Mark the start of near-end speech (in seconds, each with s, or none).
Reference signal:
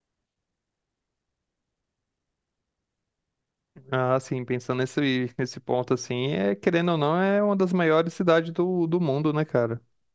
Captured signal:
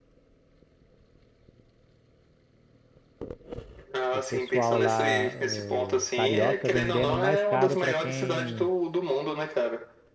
4.1 s